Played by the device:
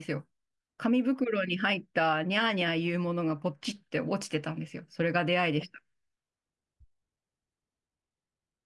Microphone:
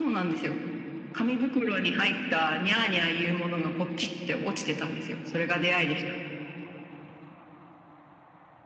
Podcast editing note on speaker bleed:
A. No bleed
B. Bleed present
B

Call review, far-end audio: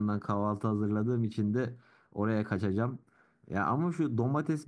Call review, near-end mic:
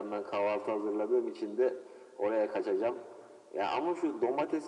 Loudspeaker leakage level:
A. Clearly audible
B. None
A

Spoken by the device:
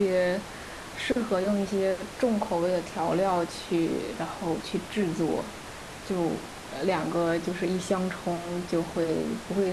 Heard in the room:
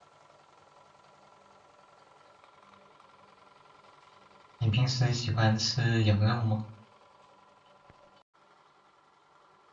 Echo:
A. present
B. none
B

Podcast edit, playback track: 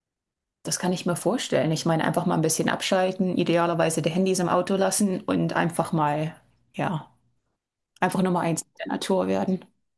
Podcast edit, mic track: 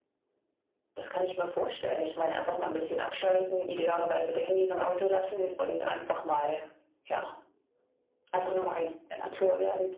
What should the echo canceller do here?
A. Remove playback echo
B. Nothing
A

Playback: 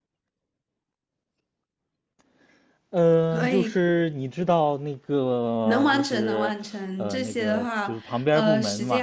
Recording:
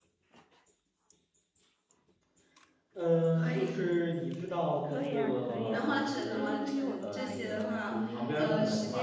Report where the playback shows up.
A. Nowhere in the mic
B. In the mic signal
B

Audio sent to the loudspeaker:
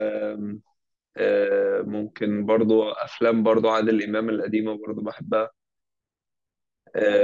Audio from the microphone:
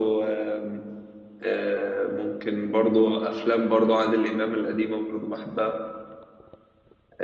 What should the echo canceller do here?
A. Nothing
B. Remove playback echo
B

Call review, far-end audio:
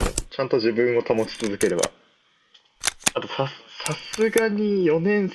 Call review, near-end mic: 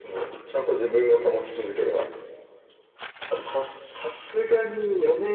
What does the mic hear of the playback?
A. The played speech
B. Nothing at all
A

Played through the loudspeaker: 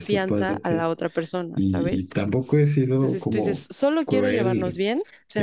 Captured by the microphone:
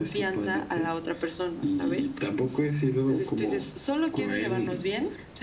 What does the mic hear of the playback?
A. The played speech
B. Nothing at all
A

